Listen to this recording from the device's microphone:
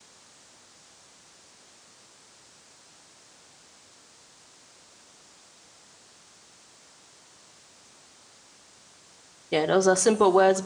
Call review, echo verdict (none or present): none